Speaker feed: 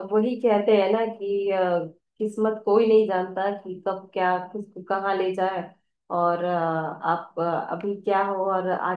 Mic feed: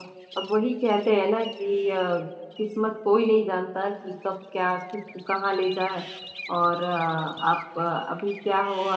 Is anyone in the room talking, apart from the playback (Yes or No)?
No